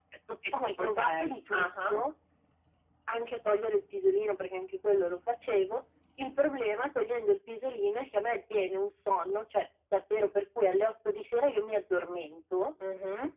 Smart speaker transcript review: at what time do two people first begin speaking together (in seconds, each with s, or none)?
0.6 s